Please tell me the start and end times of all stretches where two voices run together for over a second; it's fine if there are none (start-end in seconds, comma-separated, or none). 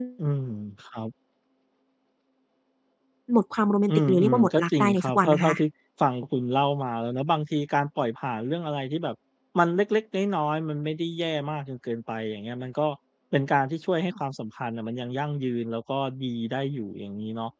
3.9-5.5